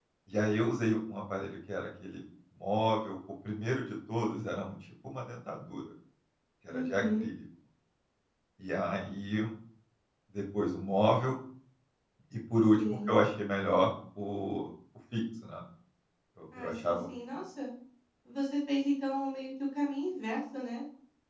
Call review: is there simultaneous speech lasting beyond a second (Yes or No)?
No